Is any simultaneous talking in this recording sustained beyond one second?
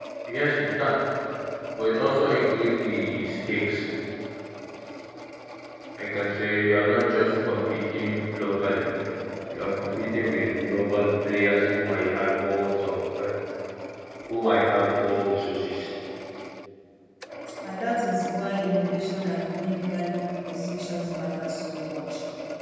No

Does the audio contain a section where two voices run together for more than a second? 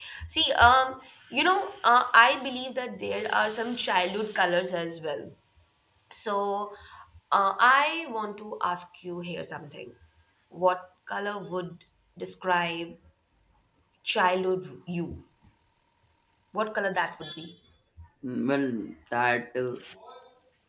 No

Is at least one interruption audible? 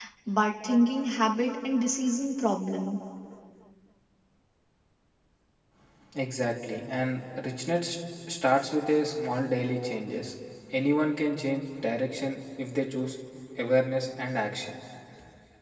No

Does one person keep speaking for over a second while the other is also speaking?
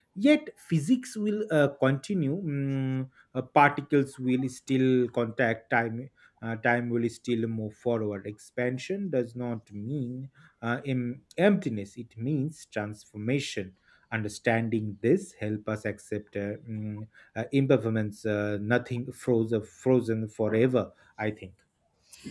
No

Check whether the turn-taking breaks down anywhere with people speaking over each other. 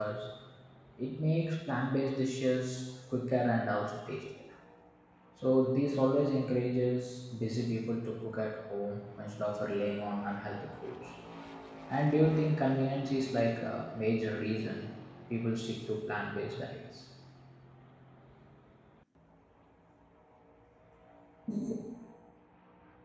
No

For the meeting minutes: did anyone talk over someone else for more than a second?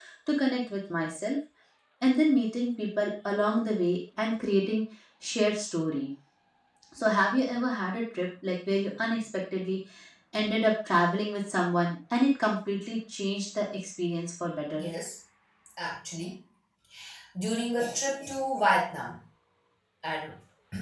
No

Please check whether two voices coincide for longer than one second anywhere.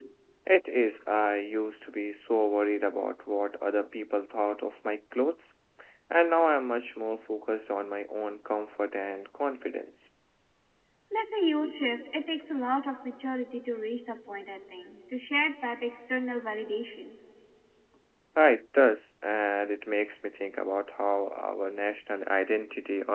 No

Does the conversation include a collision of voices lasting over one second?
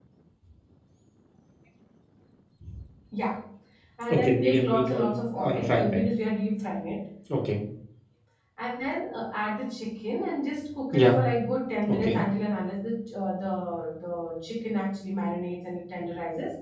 Yes, from 4.1 s

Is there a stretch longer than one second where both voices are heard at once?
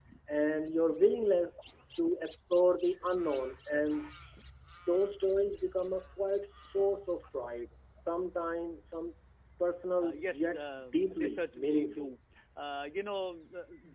Yes, from 10.1 s

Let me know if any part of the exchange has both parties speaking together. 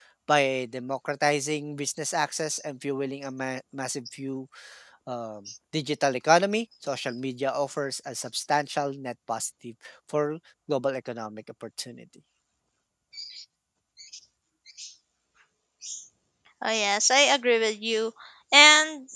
No

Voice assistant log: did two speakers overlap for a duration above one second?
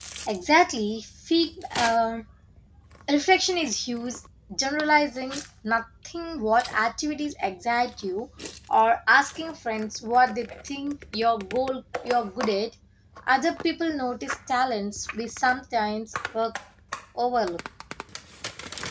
No

